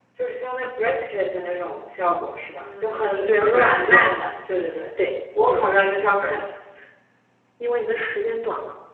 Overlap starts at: 2.6 s

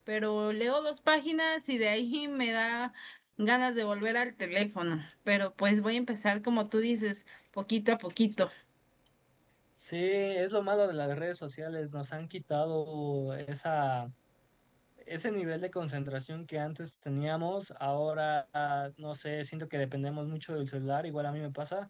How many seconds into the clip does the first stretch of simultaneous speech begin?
none

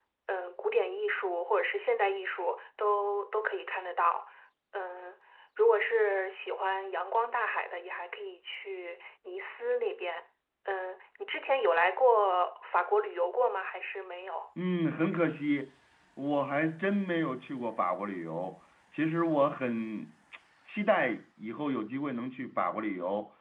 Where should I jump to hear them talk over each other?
none

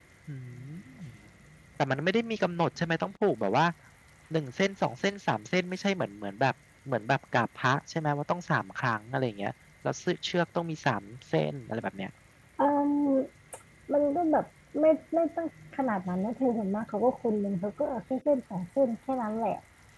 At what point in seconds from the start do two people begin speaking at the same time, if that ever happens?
none

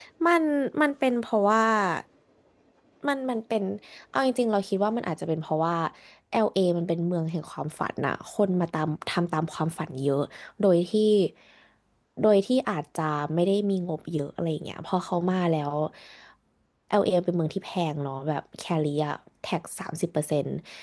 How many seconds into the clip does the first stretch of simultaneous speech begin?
none

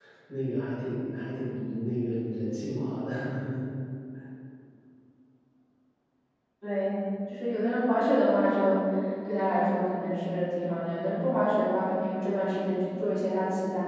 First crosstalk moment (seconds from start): none

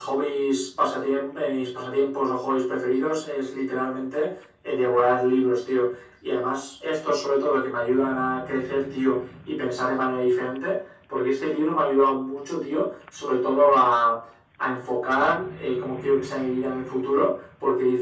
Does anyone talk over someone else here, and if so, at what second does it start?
none

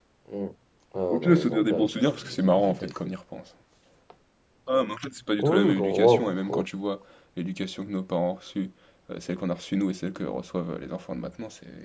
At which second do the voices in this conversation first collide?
1.1 s

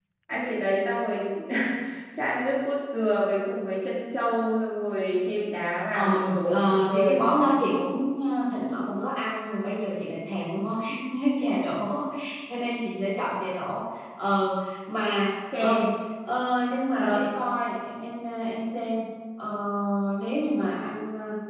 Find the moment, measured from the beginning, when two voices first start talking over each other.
5.9 s

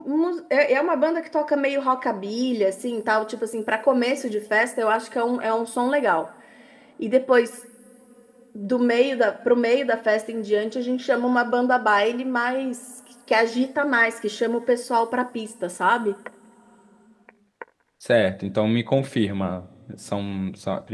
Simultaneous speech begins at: none

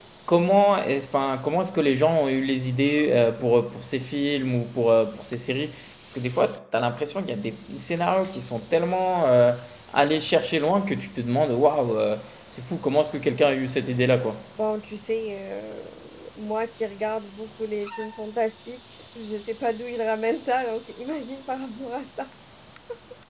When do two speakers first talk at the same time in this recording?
none

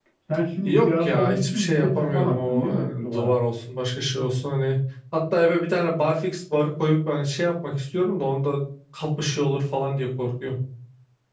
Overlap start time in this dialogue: 0.6 s

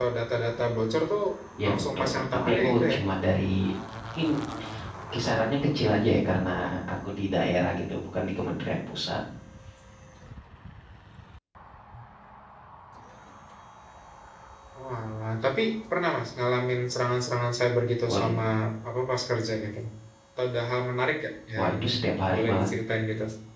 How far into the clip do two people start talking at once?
1.7 s

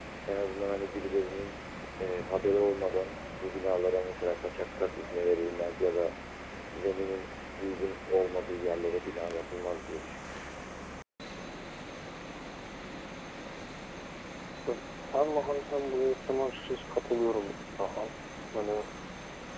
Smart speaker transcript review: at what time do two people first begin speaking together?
none

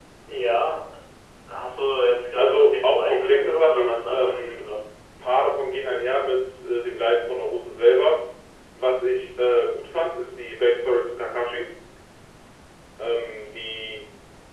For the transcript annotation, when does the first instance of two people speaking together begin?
2.4 s

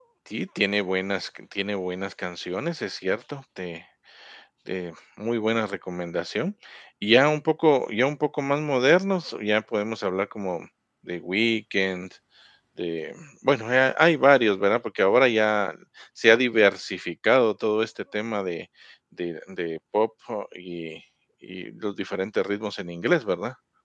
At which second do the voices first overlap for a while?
none

